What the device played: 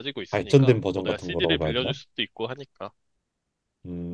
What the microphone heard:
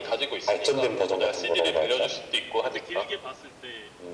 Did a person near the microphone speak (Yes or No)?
Yes